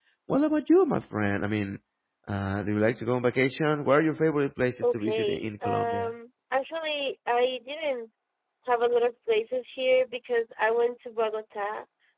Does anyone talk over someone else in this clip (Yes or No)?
Yes